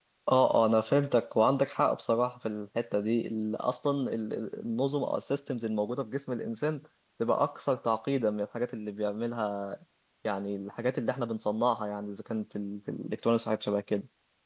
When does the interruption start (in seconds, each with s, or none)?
none